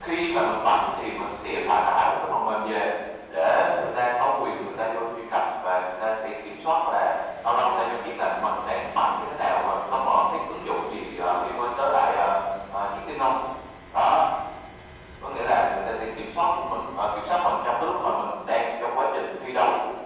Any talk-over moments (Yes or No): No